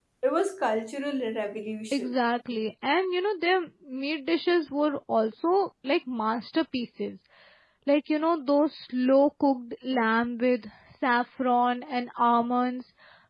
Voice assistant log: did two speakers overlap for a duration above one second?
No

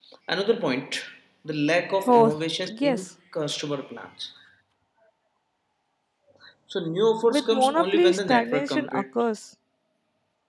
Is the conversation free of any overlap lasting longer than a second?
No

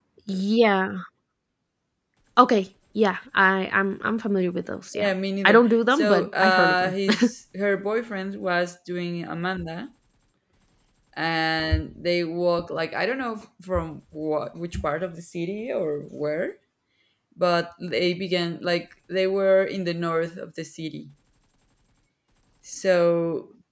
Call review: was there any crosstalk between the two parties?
Yes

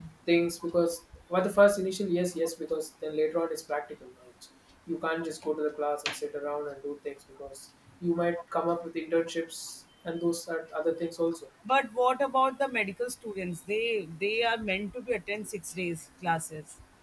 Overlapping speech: No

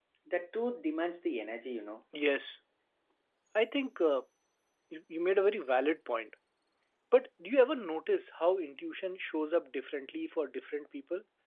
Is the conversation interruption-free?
Yes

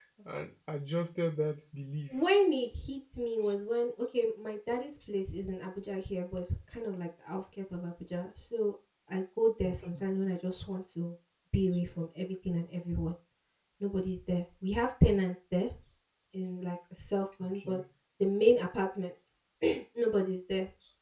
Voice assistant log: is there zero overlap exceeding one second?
Yes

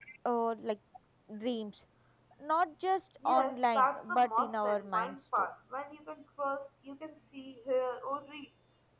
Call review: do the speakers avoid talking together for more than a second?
No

